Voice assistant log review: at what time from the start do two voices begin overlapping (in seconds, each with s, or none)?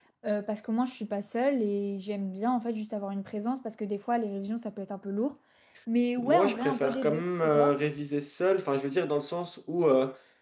6.2 s